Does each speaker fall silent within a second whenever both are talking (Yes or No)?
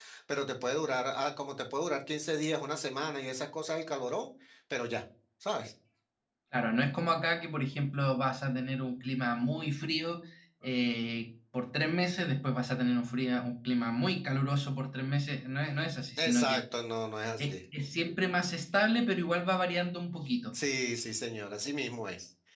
Yes